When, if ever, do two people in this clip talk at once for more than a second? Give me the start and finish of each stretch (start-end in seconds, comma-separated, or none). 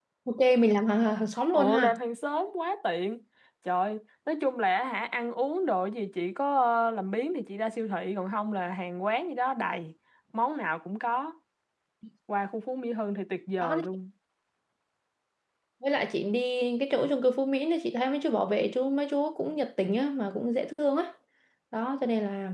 none